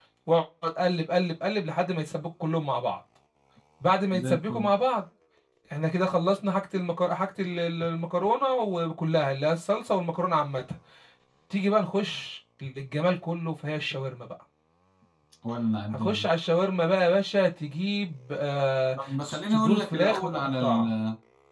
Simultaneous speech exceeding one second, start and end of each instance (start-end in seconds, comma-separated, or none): 19.2-20.9